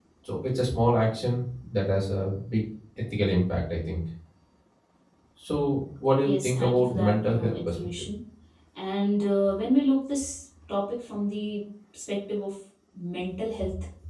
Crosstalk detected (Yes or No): Yes